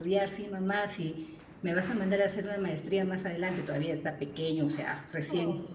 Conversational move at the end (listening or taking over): listening